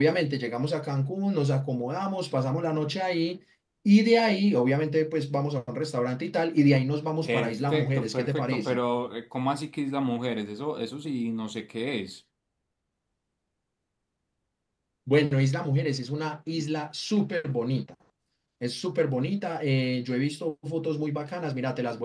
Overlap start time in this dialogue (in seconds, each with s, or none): 7.2 s